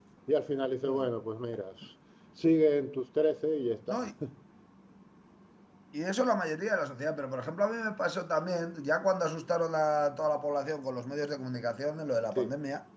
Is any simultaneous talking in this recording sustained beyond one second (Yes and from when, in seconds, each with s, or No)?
No